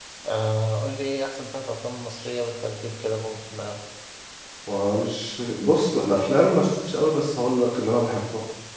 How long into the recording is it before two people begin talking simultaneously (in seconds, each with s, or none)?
none